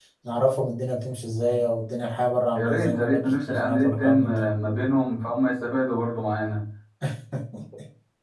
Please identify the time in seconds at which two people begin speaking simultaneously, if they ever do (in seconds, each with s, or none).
2.6 s